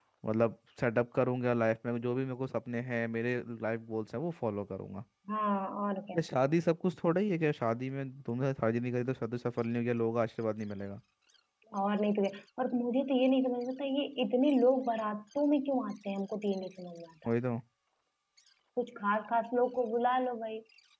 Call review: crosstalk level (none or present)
none